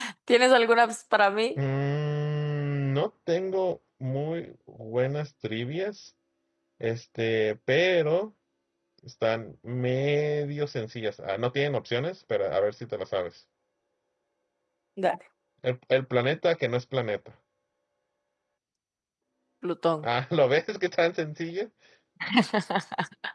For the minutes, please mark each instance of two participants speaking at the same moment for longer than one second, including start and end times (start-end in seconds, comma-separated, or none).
none